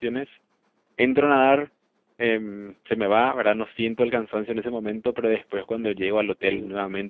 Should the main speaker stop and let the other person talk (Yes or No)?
No